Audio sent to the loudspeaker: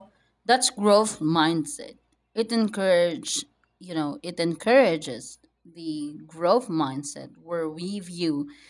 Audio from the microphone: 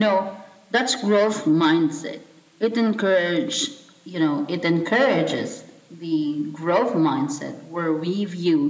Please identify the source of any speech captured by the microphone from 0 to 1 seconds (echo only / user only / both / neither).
echo only